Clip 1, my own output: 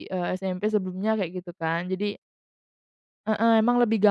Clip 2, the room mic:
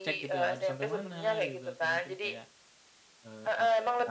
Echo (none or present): present